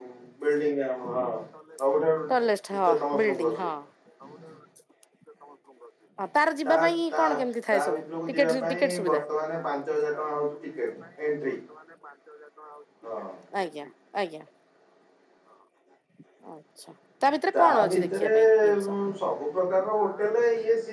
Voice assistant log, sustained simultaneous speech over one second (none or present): present